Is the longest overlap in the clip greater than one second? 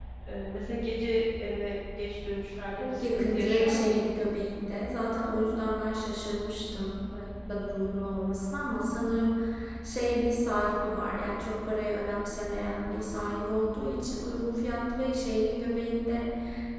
Yes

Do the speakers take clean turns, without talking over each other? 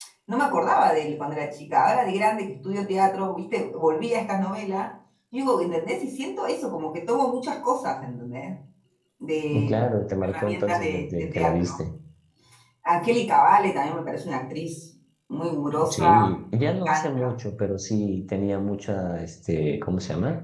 No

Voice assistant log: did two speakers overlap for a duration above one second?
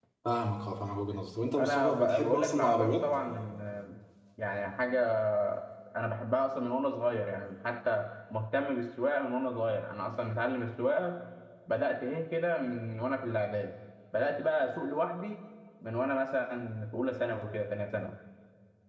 Yes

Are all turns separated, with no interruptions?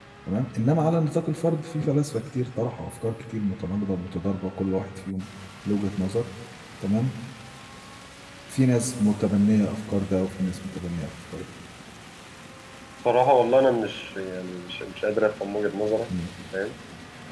Yes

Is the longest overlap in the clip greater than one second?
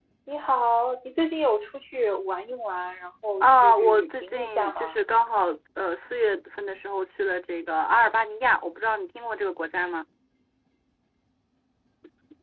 Yes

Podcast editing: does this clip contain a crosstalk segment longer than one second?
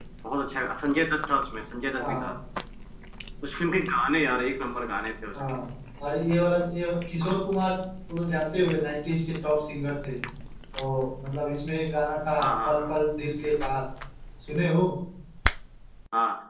No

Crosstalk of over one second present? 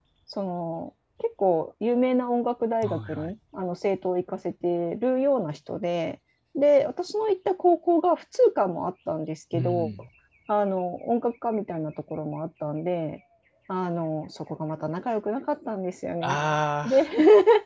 No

